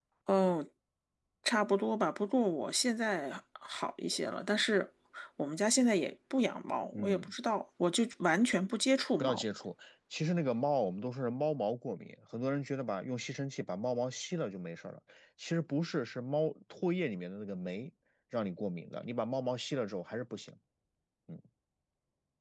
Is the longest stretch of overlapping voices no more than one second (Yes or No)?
Yes